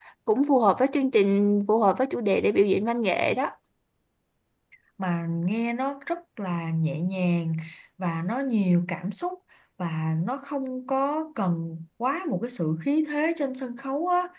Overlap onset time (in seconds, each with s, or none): none